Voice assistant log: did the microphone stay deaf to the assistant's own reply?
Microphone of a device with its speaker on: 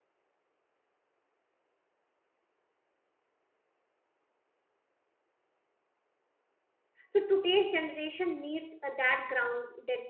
Yes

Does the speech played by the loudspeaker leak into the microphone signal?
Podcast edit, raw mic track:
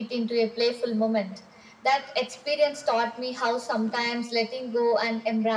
Yes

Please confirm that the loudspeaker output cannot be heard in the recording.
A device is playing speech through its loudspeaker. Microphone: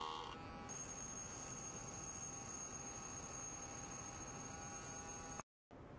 Yes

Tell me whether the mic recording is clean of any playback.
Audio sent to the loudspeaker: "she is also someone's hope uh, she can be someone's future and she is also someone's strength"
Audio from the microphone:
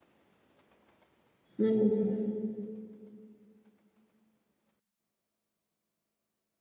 Yes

